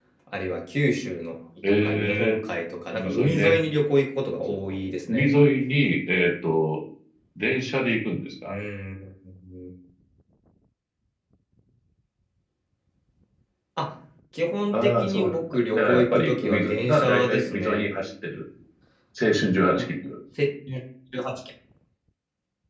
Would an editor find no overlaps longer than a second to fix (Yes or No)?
No